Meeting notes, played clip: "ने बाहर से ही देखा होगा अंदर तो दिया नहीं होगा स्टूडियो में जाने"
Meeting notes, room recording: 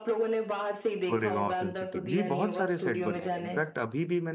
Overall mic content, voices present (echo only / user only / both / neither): both